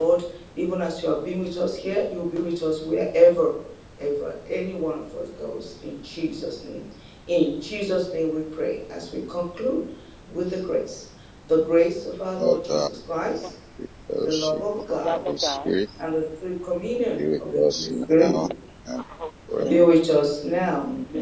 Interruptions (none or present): present